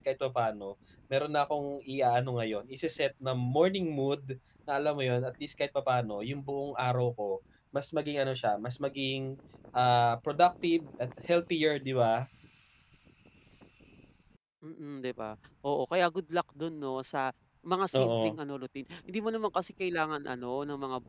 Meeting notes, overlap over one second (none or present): none